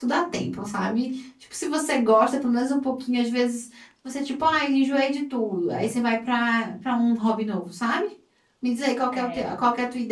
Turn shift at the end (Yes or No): No